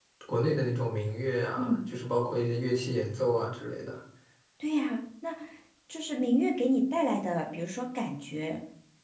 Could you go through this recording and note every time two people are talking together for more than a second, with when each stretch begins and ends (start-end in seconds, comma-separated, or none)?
none